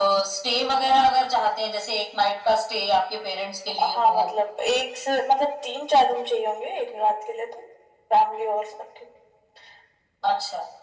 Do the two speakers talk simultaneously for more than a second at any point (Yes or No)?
No